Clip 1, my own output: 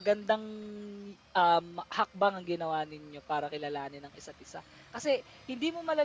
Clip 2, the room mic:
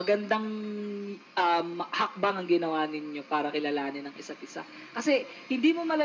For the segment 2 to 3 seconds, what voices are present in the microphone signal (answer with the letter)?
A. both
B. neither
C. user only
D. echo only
D